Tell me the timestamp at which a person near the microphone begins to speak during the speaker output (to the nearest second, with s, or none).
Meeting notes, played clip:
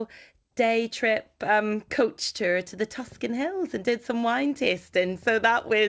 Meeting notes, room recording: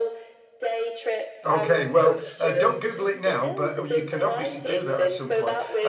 1 s